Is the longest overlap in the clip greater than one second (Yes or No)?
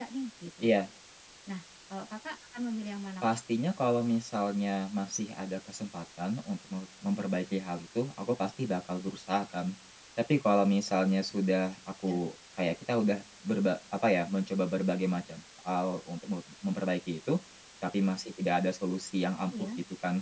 No